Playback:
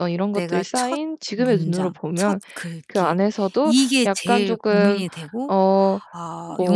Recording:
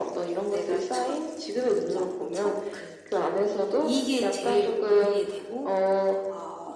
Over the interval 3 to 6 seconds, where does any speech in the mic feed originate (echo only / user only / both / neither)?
echo only